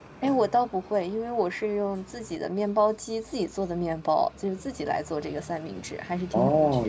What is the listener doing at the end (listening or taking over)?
taking over